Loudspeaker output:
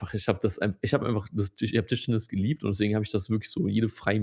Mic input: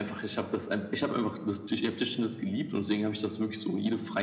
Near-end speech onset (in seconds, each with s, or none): none